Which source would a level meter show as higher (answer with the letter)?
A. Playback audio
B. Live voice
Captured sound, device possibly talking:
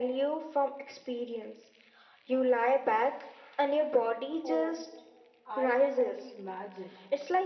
A